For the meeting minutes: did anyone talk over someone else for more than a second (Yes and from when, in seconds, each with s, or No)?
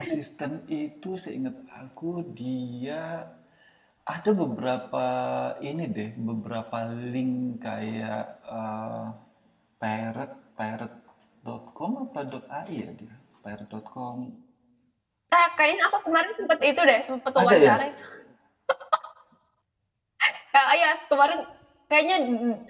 No